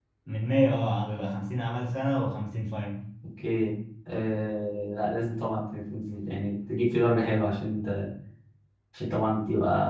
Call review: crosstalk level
none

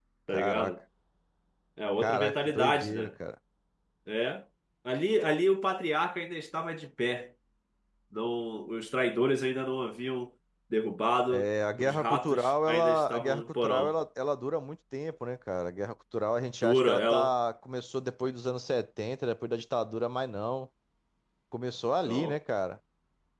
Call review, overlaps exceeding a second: present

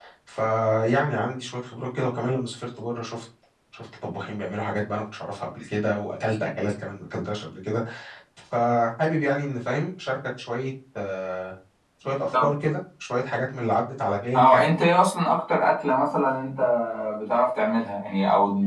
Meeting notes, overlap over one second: none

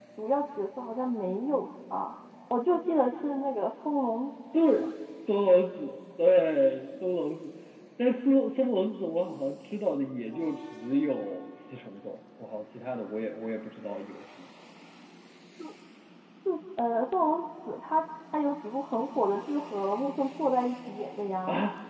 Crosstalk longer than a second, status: none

